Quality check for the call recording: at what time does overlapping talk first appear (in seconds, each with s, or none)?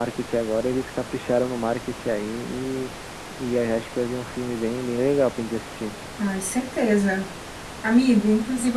none